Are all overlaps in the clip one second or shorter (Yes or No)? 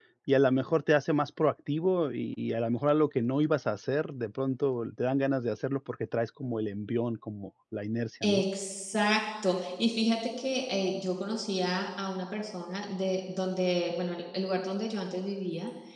Yes